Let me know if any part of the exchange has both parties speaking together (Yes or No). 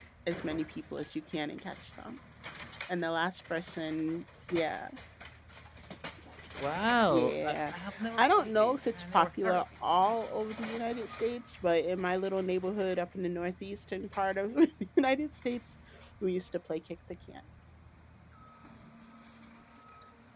Yes